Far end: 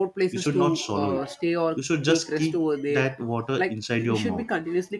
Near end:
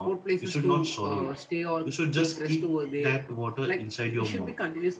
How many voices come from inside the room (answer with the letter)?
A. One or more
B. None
B